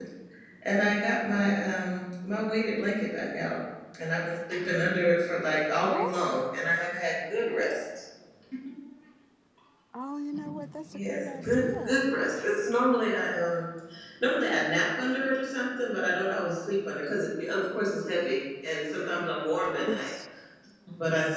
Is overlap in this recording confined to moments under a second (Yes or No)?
No